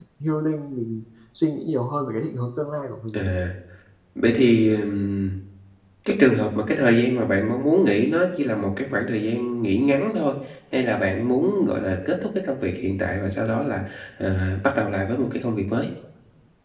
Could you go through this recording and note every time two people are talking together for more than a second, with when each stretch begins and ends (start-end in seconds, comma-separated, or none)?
none